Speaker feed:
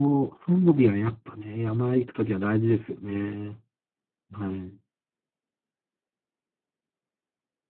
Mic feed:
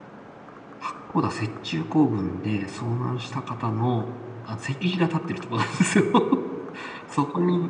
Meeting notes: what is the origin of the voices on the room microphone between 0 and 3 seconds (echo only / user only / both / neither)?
user only